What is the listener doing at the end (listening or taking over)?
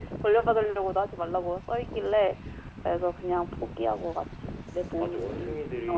taking over